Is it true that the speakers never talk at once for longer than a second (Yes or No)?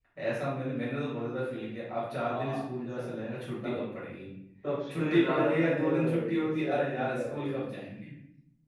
No